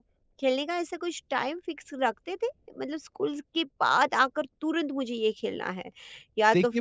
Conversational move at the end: taking over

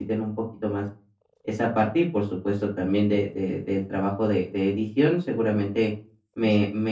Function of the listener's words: listening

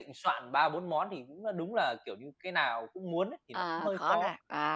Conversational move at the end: taking over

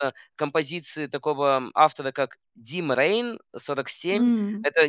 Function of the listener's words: listening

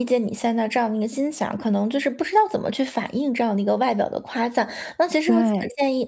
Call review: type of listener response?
listening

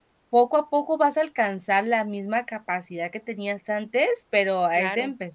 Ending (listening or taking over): listening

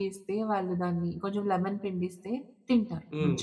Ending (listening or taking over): taking over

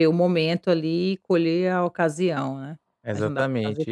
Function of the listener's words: taking over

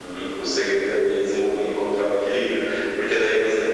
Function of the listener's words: listening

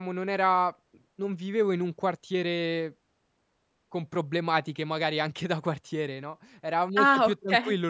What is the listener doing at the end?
listening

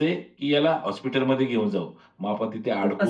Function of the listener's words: listening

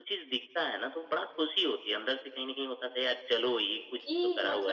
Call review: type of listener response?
taking over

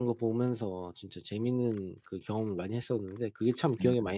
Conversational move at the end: taking over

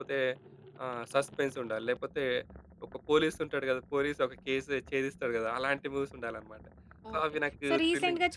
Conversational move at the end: taking over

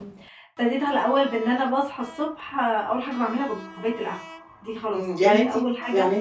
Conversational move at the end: taking over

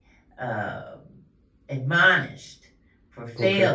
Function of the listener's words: taking over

